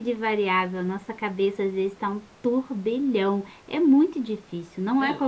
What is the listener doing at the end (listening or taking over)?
taking over